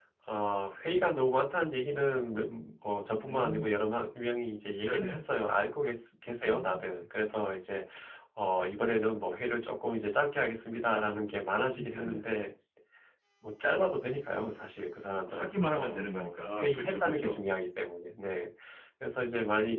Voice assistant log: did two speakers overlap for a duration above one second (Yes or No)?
Yes